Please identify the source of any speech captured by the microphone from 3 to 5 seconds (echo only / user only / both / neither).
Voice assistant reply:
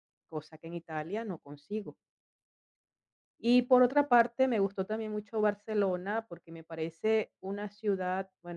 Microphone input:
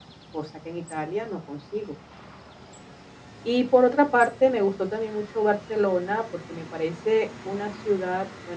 echo only